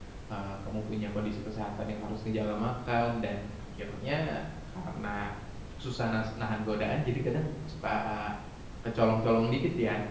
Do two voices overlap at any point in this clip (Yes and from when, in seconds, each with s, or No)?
No